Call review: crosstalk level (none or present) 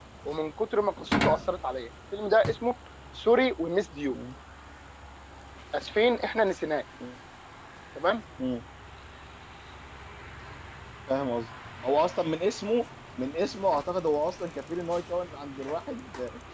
none